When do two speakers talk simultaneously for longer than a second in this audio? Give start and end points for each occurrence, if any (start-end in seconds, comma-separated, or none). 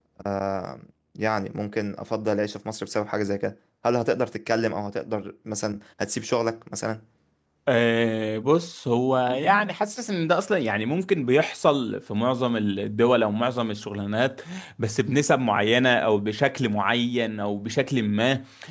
none